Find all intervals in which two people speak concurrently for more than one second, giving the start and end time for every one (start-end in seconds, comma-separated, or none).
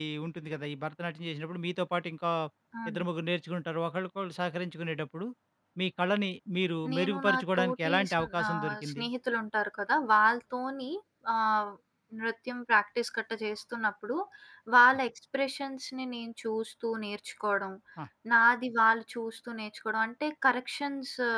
6.9-9.0